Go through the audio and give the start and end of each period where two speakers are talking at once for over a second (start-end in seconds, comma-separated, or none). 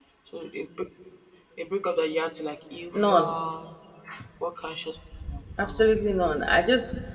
none